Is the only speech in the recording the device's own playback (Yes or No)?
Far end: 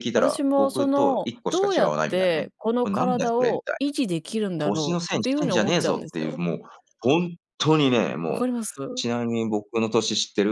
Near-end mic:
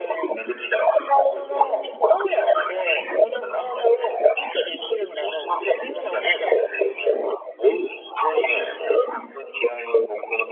Yes